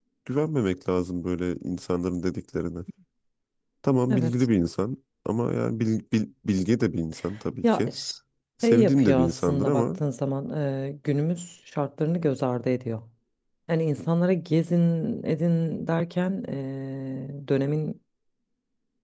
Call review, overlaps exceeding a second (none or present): present